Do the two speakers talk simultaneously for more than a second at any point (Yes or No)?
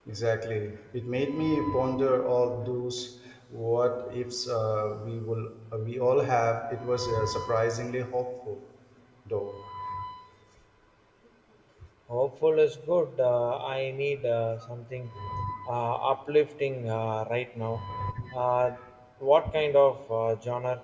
No